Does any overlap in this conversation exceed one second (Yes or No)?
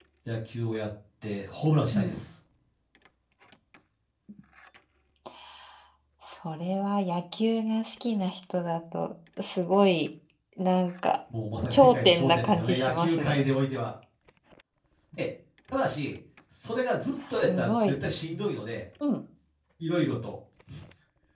Yes